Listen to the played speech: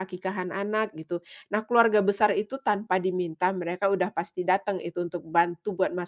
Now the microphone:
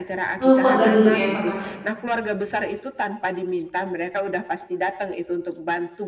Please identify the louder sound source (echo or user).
user